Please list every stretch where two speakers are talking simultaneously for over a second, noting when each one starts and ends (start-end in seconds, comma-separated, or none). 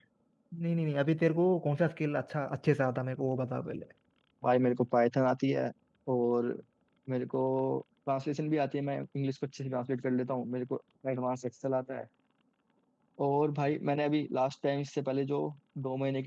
none